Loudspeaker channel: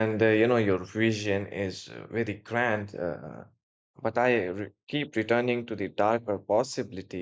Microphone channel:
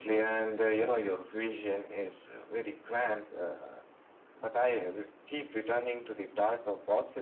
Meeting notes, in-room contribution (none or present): none